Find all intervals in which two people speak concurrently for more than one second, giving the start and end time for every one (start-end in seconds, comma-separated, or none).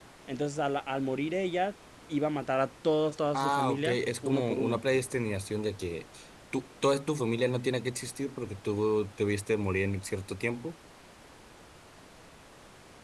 3.4-4.8